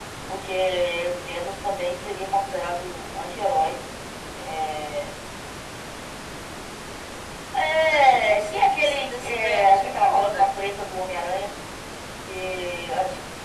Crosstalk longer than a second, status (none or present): present